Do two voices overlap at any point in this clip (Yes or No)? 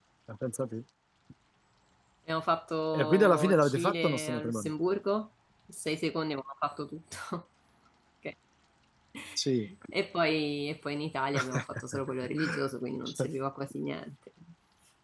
Yes